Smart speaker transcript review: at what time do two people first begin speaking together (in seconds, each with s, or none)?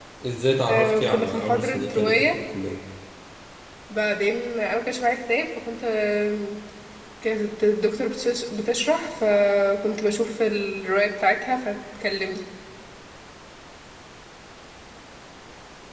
0.7 s